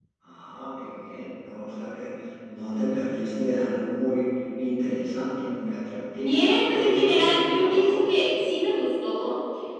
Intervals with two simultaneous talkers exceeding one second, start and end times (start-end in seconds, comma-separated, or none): 6.2-8.0